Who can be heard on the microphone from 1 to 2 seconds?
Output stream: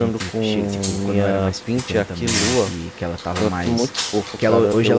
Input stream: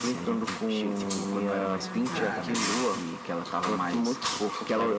both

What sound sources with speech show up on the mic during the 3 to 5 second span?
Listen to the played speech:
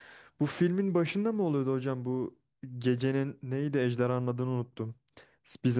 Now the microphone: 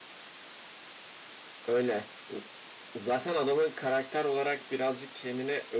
user only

